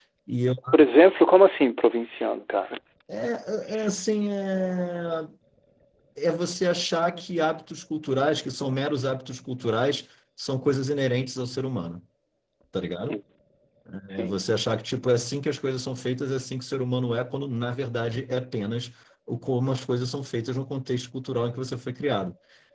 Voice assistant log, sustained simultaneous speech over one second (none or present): none